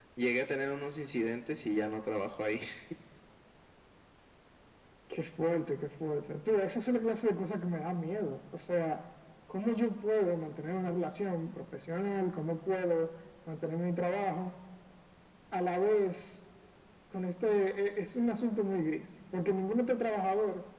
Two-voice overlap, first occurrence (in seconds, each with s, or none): none